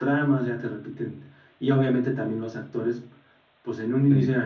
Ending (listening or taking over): listening